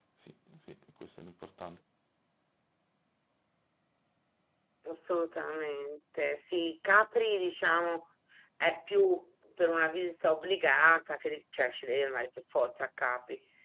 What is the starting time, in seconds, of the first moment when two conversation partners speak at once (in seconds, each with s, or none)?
none